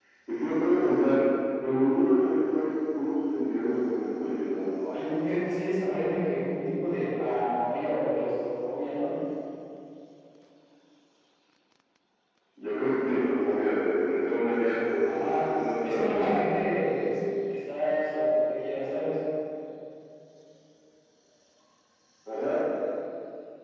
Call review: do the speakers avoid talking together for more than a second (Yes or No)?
No